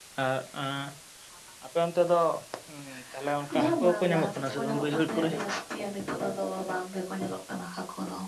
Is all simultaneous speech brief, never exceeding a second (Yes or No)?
No